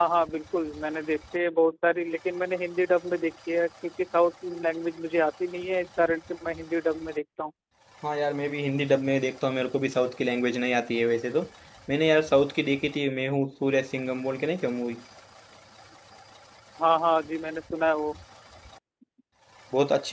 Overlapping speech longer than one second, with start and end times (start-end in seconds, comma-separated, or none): none